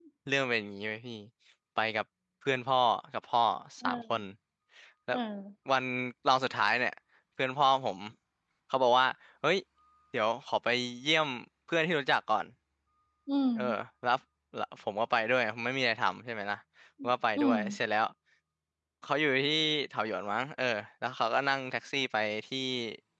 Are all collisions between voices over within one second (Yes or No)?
Yes